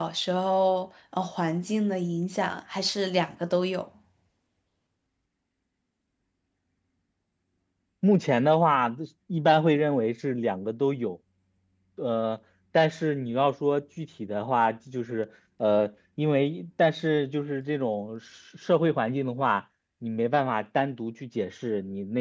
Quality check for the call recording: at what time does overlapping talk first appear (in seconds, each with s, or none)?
none